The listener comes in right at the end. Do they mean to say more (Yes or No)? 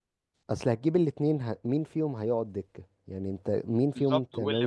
Yes